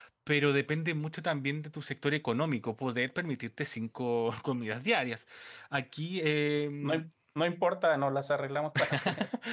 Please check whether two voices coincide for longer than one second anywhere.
No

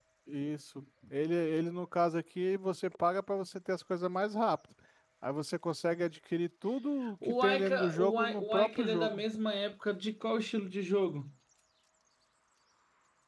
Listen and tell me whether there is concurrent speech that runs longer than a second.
Yes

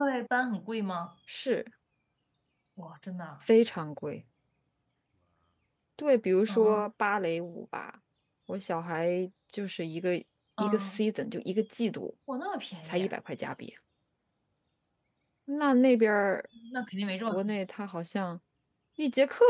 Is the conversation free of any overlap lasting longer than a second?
Yes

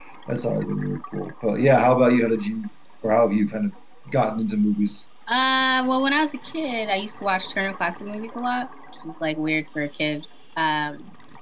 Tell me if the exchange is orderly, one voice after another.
Yes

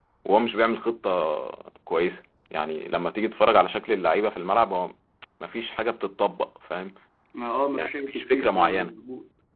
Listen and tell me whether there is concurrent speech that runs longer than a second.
Yes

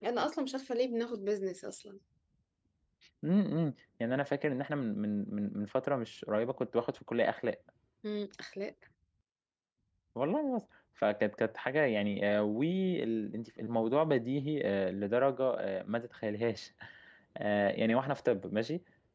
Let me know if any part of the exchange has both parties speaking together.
No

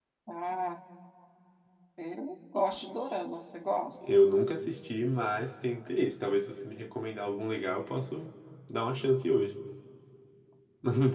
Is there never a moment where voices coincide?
Yes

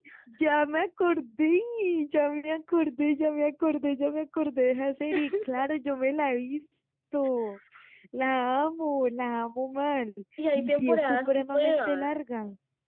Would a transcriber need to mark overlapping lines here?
Yes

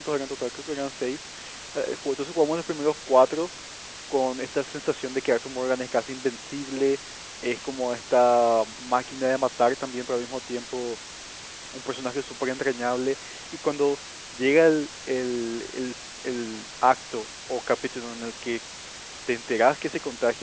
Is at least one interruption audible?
No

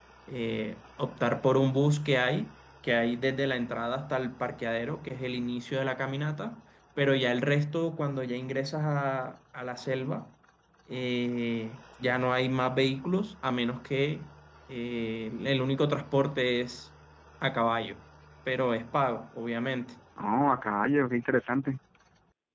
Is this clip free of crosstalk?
Yes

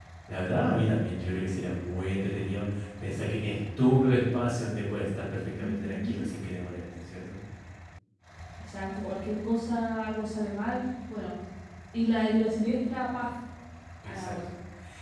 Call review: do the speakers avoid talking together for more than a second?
Yes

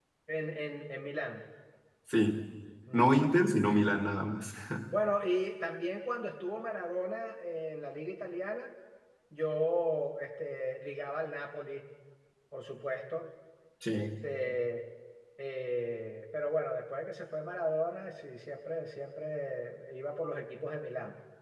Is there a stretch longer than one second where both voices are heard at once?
No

